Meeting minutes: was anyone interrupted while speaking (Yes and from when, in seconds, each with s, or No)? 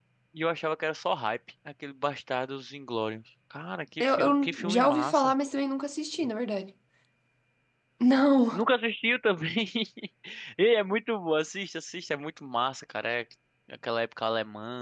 Yes, from 4.0 s